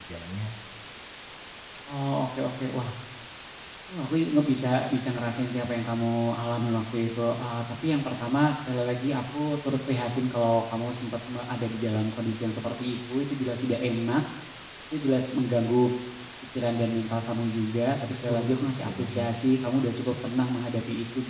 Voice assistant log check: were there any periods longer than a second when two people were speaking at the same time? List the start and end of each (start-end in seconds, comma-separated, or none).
18.1-19.3